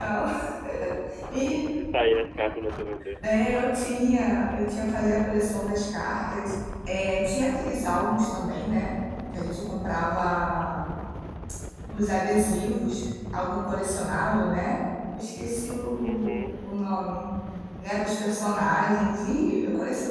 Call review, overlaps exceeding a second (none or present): none